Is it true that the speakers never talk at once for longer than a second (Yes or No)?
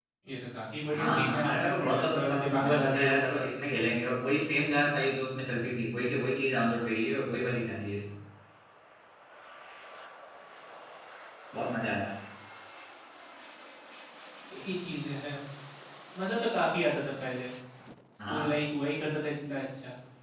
No